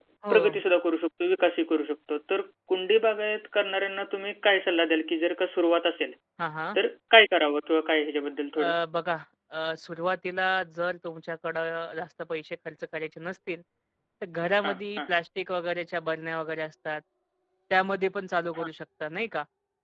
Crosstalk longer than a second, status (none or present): none